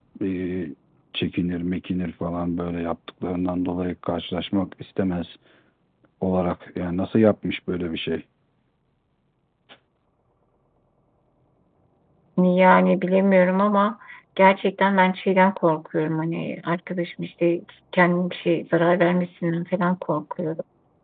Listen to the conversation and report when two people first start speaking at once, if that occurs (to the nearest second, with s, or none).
none